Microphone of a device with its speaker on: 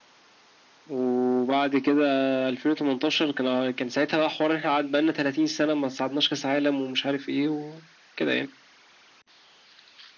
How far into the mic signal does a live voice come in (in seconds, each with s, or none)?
none